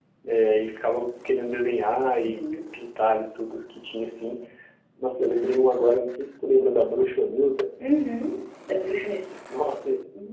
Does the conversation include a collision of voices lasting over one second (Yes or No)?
No